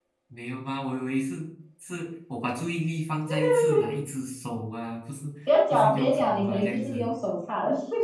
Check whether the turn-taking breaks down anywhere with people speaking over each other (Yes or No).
Yes